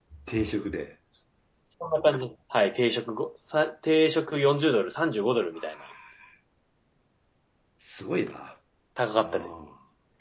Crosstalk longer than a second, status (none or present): none